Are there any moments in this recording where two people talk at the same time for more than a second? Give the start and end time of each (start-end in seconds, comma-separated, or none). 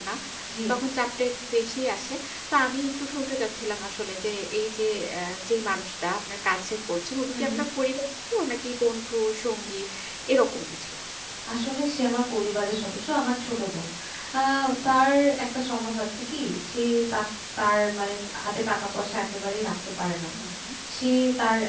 none